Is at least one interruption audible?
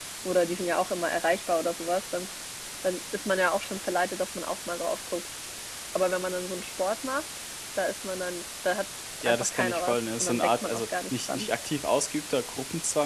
Yes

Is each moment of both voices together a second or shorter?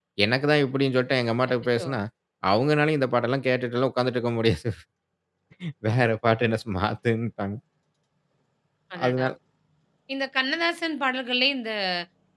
Yes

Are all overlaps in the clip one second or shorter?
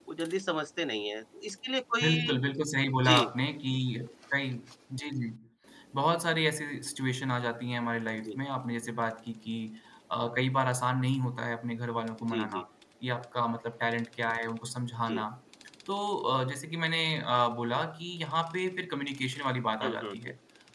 Yes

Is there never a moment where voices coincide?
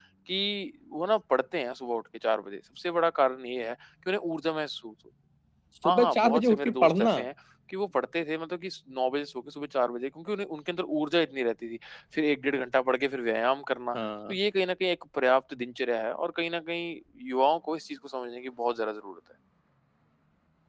No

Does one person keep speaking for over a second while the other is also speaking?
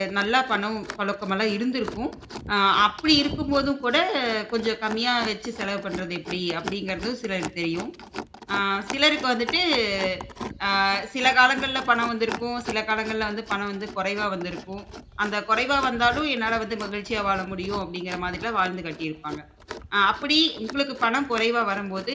No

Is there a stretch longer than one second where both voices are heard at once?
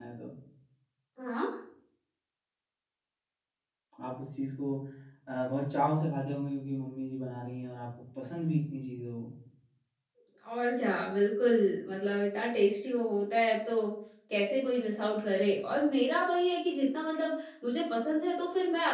No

